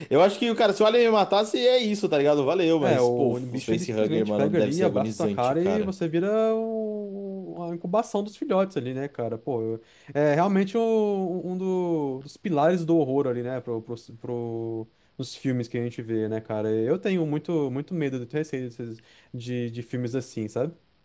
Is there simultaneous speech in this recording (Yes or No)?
Yes